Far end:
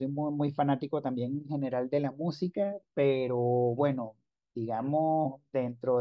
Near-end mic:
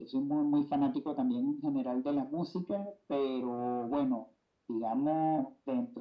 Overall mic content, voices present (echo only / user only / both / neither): echo only